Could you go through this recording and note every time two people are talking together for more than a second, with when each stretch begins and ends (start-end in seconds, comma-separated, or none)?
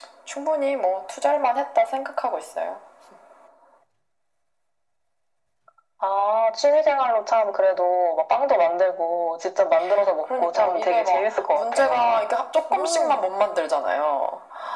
10.2-12.3